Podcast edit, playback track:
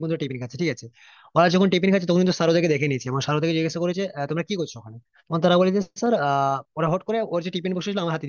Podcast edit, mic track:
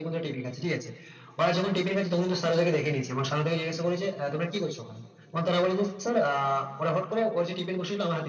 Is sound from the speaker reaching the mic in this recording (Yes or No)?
Yes